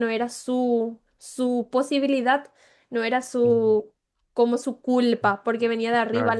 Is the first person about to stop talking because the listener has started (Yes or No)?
No